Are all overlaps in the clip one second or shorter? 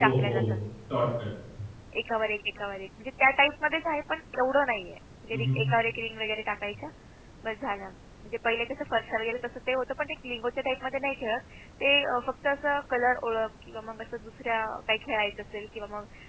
Yes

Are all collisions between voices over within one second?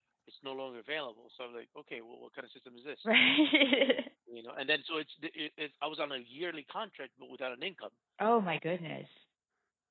Yes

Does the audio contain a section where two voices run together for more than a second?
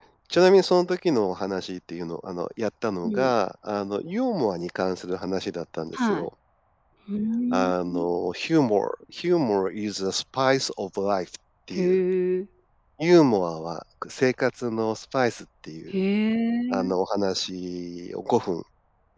No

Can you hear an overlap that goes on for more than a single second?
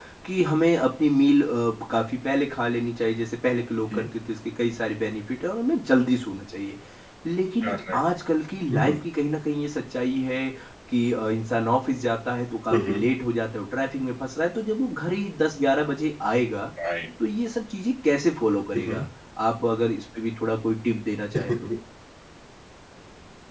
No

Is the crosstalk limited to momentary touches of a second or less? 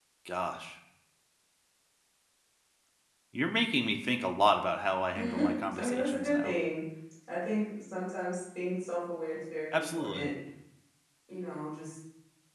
No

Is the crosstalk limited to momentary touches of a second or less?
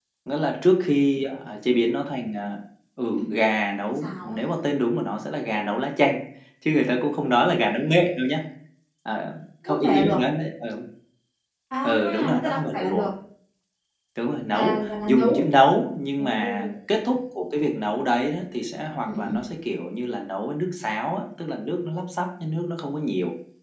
No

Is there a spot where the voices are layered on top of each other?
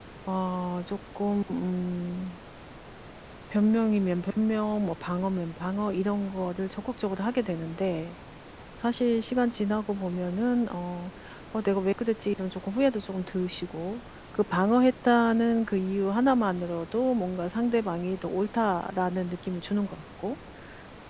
No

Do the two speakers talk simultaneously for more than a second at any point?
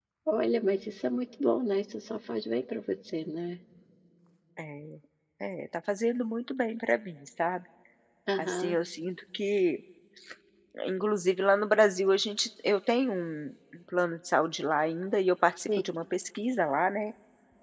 No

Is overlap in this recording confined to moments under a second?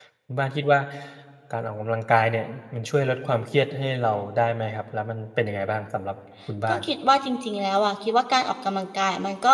Yes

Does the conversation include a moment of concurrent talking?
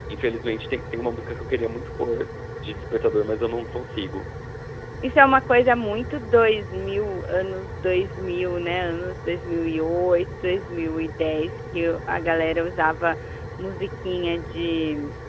No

